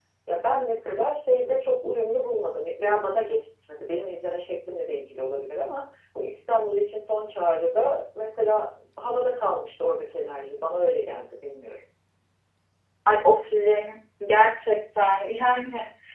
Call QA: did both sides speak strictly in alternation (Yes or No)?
Yes